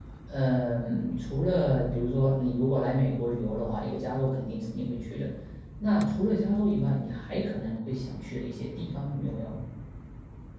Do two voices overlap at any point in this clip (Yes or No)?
No